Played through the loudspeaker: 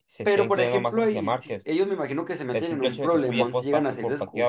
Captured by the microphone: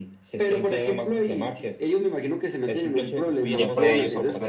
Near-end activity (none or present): present